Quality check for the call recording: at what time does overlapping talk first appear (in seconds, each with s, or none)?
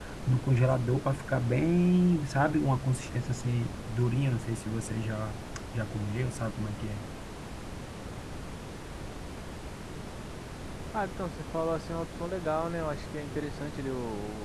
none